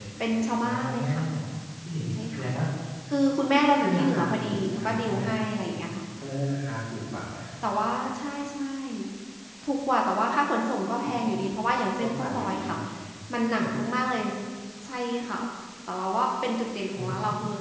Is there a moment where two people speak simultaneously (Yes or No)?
Yes